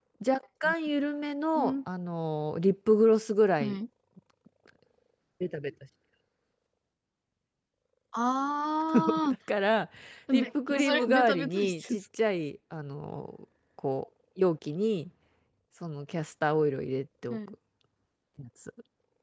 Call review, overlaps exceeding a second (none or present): present